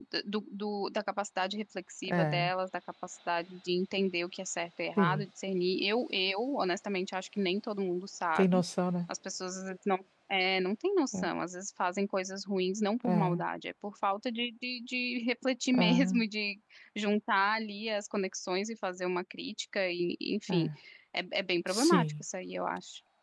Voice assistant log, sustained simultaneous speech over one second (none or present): none